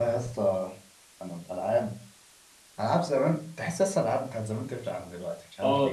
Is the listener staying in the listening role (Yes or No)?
No